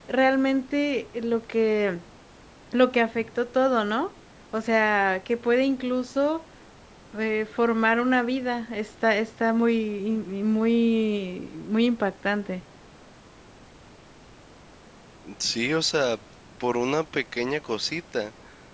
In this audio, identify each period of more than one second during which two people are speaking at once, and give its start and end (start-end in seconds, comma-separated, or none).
none